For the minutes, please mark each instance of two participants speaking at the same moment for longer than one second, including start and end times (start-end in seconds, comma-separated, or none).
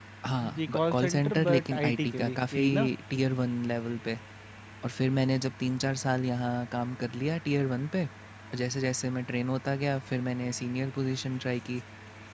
0.6-2.6